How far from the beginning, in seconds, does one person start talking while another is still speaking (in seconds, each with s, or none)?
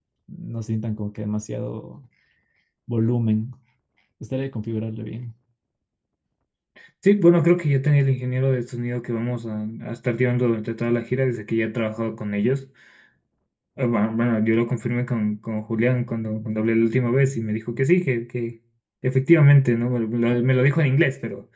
none